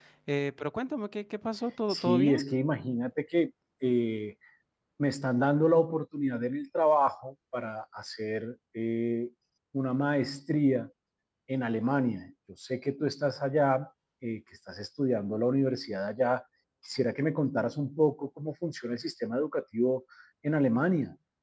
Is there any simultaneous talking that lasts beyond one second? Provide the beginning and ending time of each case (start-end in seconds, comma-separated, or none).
none